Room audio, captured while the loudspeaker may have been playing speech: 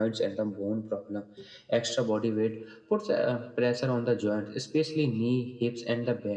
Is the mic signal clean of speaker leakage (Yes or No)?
No